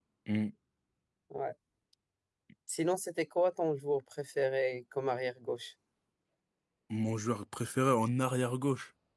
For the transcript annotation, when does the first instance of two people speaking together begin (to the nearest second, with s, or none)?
none